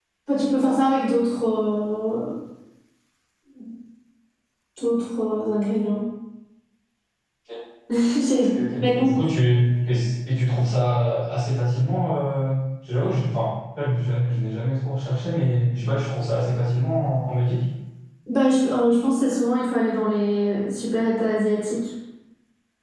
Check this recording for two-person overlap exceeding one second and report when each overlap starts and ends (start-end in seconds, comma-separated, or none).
none